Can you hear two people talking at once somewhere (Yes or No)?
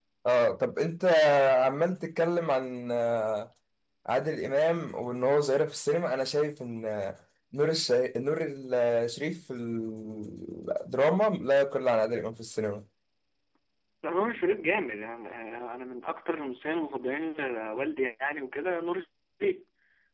No